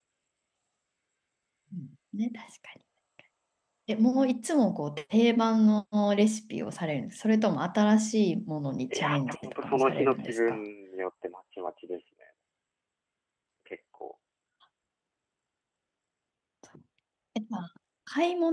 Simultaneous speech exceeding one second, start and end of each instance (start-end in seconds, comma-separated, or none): 8.9-10.6